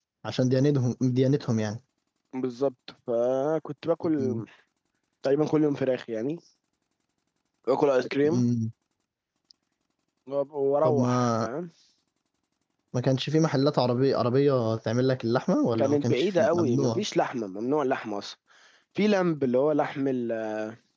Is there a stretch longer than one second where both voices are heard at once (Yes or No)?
Yes